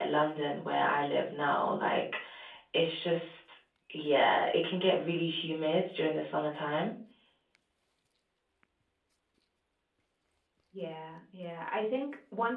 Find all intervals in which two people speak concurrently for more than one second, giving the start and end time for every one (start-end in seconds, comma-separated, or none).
none